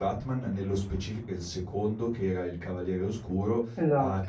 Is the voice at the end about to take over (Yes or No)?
No